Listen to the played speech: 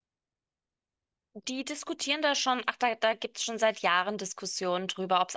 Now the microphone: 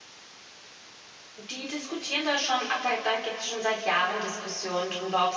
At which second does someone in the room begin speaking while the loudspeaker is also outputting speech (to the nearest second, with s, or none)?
none